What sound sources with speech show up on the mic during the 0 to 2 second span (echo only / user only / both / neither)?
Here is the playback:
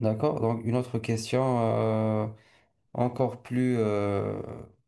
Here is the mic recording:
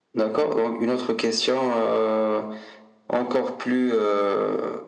echo only